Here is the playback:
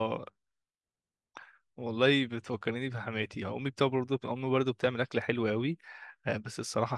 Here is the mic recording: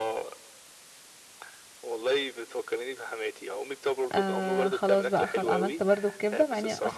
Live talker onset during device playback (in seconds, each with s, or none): 4.1 s